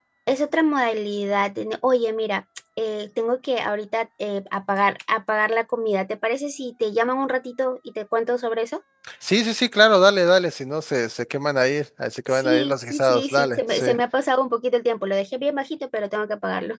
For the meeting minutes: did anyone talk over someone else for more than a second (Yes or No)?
Yes